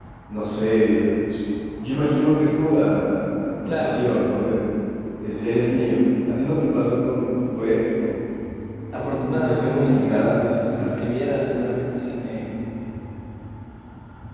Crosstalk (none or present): present